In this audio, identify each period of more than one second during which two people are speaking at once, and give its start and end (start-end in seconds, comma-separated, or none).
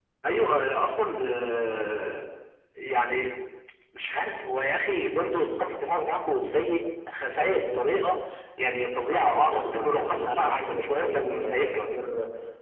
9.1-11.8